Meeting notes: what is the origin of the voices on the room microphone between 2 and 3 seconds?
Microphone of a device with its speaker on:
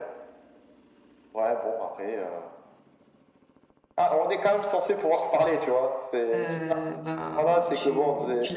echo only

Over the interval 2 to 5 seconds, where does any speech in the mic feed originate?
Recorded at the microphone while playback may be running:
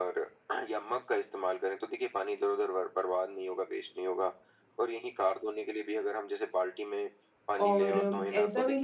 echo only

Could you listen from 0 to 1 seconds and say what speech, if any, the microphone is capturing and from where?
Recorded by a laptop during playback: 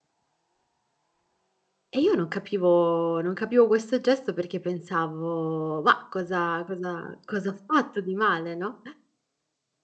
neither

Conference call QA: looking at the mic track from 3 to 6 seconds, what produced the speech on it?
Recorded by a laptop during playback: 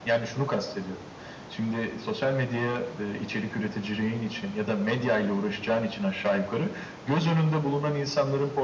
echo only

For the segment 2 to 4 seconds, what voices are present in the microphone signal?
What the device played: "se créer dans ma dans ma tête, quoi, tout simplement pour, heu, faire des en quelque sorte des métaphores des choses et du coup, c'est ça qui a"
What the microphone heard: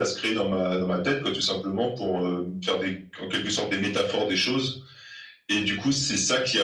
echo only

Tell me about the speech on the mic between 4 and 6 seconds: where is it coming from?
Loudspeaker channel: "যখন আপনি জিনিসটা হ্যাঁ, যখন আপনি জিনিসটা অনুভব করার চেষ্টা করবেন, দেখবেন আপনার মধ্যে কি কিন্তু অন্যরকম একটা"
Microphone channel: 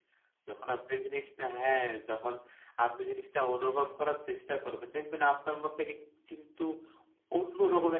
echo only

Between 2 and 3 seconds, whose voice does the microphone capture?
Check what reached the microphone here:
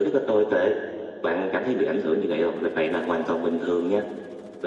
echo only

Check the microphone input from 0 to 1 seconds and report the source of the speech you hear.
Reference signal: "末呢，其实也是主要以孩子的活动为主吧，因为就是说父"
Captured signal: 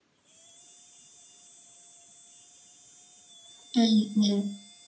neither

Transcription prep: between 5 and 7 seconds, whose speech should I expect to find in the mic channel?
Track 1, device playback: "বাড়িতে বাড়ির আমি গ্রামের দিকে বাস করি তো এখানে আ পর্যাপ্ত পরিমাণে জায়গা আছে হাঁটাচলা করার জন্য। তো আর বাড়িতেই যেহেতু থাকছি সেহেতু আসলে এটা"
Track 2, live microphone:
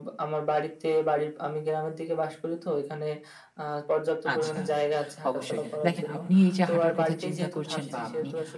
both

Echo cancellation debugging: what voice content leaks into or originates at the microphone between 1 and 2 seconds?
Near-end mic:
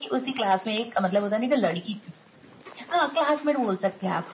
echo only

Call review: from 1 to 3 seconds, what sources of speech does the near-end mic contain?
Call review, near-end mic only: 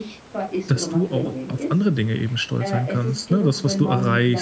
both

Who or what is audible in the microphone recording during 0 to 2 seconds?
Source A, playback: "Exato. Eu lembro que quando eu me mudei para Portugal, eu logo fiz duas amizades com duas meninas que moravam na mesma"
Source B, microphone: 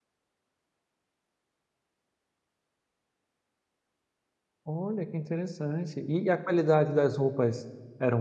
neither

